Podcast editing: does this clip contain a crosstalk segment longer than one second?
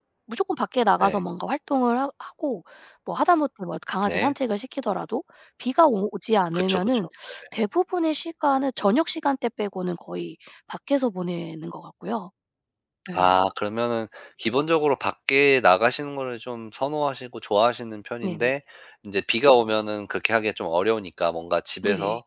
No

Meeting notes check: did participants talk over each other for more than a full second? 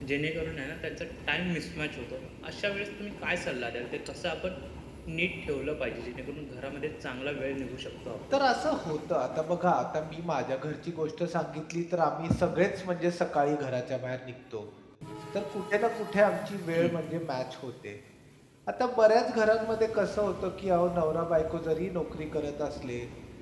No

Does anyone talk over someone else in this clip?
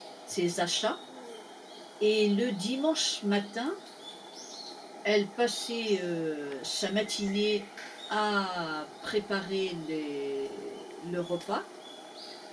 No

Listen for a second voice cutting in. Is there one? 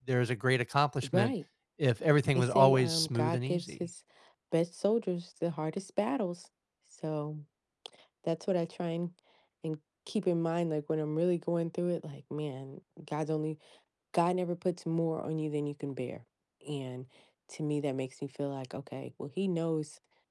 Yes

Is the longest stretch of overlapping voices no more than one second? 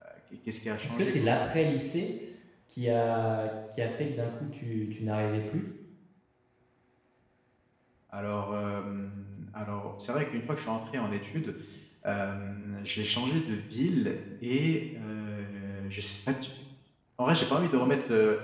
Yes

